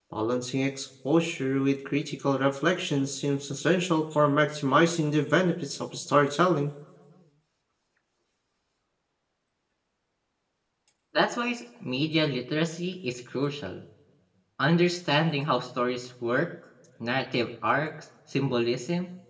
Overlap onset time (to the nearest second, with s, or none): none